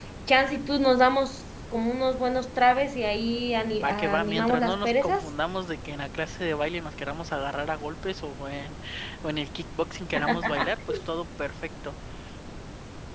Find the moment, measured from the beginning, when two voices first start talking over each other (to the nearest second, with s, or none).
4 s